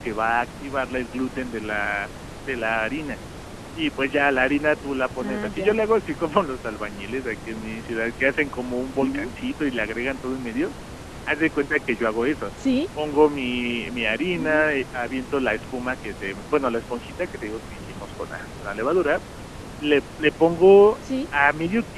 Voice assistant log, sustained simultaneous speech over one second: none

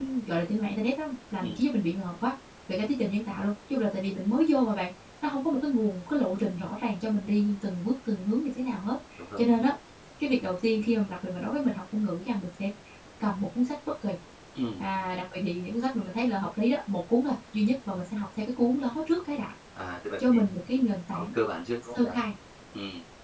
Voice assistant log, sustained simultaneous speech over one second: none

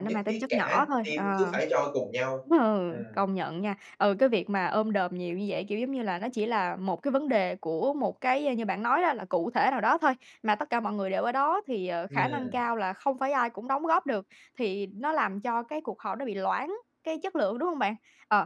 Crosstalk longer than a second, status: present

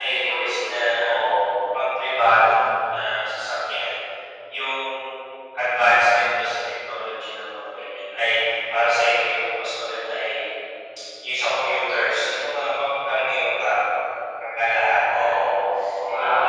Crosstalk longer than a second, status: none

